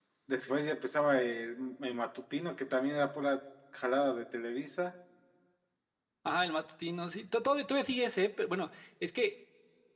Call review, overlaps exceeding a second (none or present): none